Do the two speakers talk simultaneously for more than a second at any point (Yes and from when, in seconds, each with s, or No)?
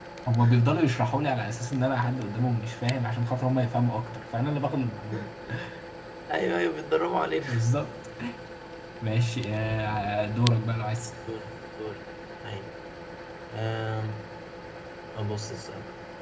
No